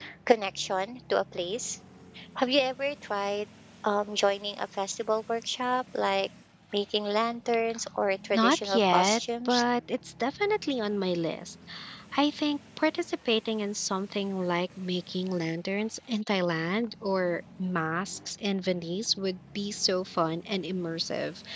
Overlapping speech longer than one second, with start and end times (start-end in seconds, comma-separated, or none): 8.3-9.6